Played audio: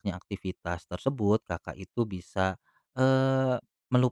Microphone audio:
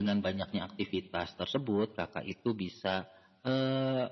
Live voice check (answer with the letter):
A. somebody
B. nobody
B